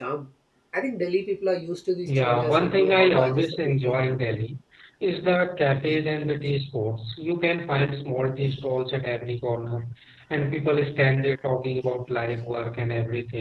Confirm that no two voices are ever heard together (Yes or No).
No